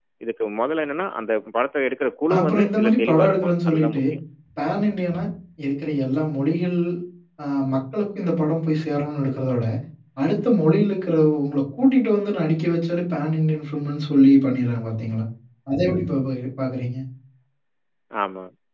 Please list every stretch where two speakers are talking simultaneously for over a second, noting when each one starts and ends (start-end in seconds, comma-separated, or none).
2.4-4.0